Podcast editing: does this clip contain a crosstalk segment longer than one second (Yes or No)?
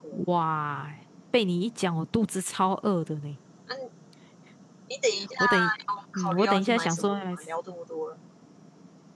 Yes